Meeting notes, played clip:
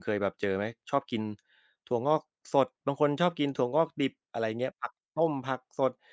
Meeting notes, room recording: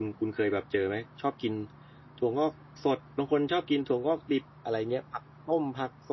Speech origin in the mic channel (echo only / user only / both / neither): echo only